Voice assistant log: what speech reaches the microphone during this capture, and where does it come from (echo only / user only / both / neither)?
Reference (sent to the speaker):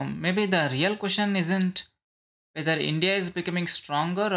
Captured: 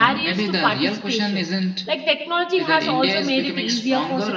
both